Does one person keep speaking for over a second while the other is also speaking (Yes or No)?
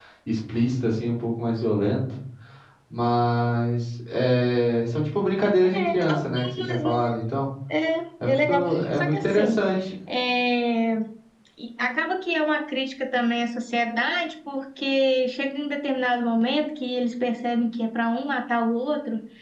Yes